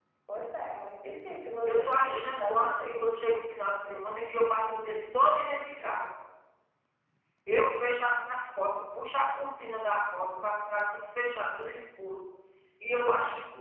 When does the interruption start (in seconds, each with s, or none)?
1.6 s